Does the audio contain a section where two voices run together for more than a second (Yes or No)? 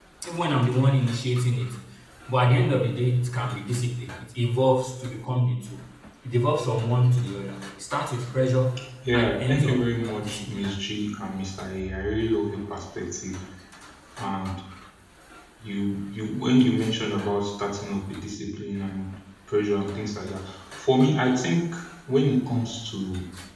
Yes